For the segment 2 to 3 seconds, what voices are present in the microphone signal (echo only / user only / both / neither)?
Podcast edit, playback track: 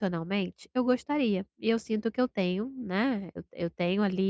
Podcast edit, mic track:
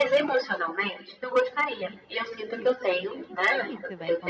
both